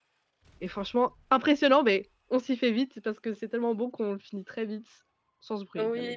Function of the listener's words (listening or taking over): taking over